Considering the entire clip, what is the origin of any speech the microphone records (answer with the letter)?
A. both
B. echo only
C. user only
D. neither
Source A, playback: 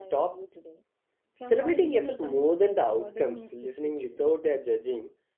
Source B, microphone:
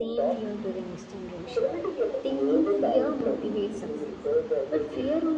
A